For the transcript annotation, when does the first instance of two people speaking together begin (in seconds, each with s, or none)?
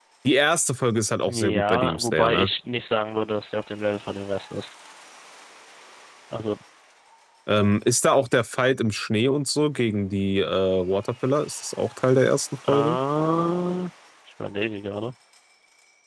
1.3 s